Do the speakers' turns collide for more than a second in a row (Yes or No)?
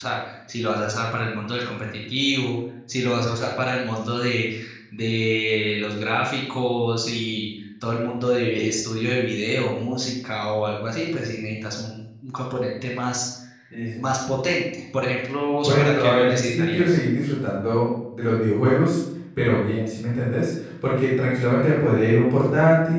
Yes